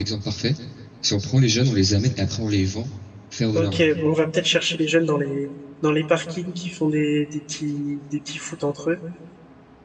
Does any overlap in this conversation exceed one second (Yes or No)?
No